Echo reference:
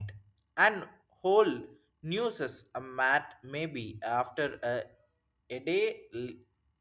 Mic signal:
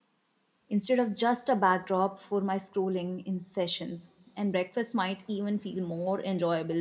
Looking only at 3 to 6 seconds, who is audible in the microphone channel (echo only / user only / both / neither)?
user only